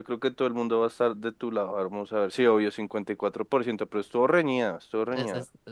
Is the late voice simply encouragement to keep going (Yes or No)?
No